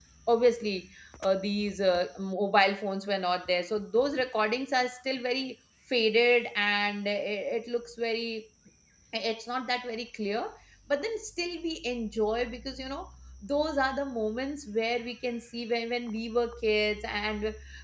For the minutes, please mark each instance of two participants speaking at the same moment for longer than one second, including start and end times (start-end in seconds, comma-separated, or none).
none